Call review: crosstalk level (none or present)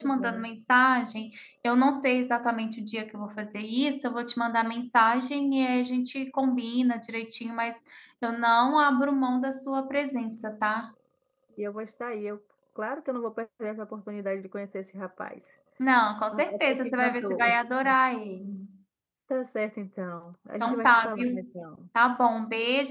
present